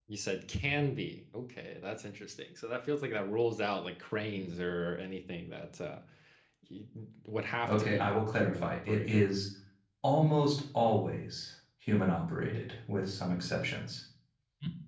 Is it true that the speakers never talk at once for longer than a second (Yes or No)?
No